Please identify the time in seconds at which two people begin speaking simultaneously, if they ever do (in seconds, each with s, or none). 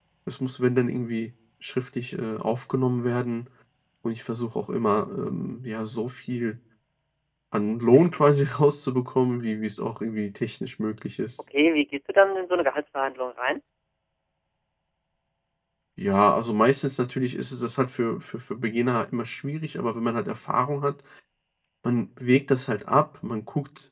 none